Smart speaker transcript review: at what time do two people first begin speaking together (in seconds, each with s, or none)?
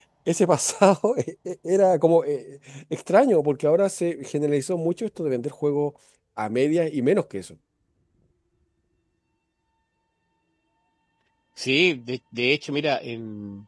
none